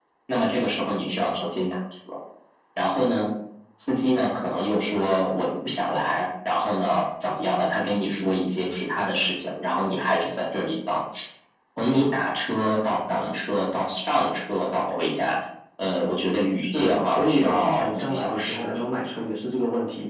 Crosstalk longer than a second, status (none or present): present